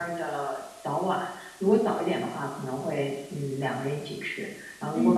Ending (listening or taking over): listening